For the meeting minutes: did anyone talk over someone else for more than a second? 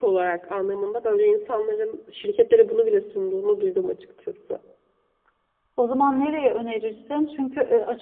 No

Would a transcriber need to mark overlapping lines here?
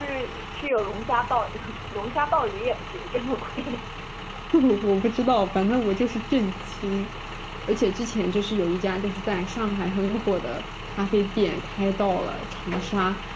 No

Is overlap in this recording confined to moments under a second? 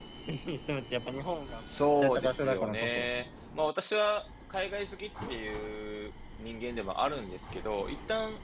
No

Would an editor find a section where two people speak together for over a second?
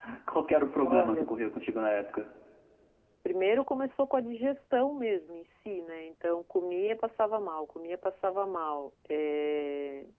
No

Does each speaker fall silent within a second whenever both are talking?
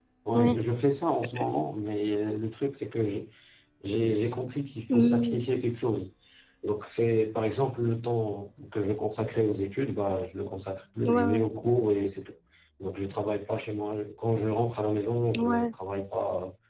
Yes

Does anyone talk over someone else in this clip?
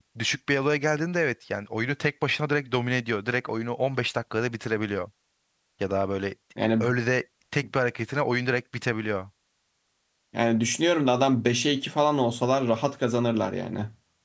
No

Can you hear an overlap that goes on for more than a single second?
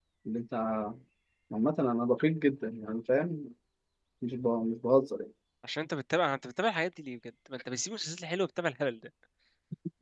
No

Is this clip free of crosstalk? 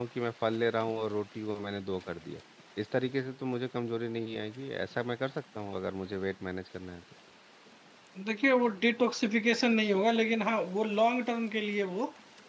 Yes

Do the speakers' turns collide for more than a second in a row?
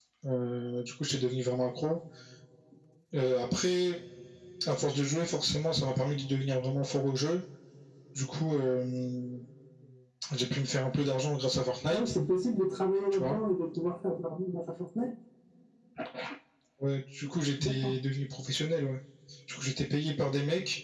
No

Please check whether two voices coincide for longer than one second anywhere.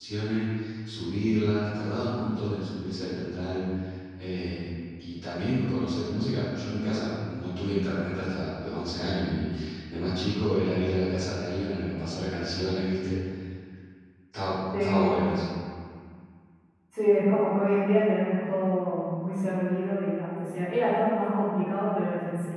No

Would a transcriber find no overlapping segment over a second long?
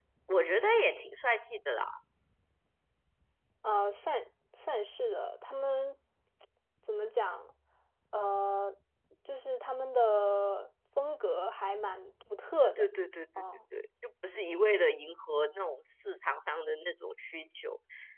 Yes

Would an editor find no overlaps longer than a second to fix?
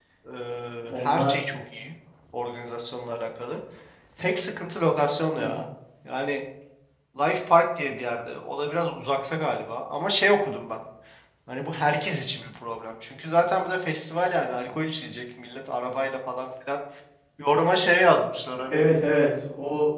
Yes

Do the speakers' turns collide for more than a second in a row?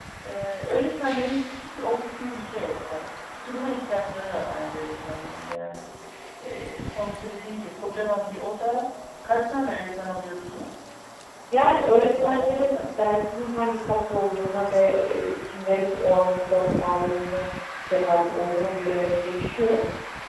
Yes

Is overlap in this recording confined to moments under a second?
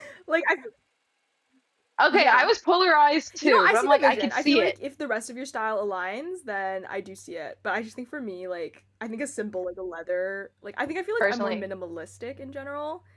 No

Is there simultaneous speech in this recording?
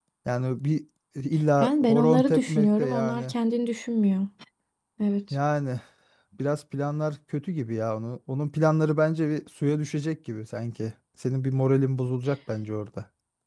Yes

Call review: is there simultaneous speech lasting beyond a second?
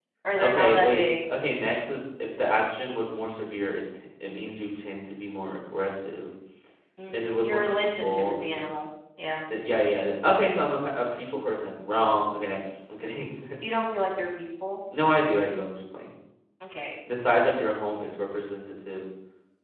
Yes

